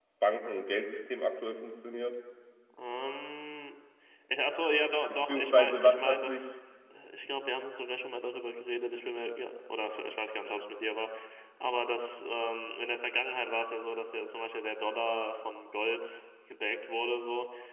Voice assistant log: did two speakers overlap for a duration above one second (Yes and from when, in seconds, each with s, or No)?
Yes, from 5.1 s